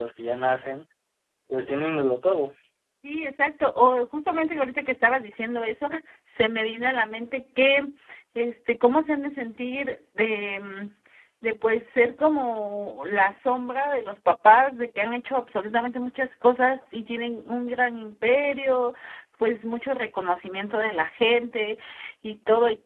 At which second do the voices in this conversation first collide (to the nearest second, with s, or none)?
none